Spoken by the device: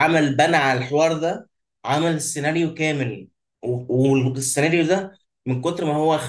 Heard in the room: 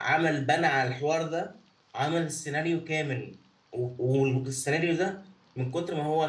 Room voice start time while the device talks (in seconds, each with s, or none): none